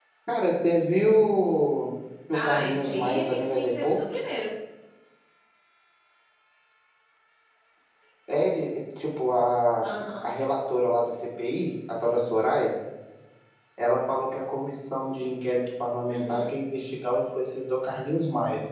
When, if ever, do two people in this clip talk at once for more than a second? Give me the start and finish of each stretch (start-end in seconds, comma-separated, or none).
2.3-4.1